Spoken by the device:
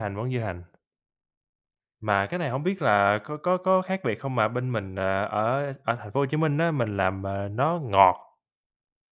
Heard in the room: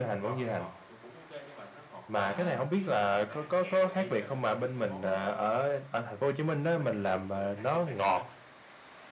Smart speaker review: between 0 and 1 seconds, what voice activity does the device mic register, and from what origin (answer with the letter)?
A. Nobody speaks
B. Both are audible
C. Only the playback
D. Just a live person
B